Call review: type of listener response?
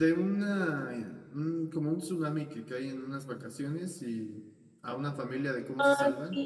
taking over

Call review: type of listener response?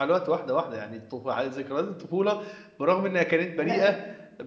listening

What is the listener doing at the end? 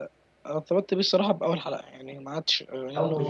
listening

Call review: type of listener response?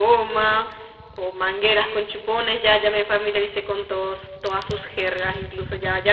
listening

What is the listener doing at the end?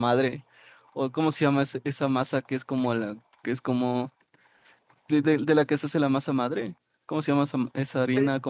taking over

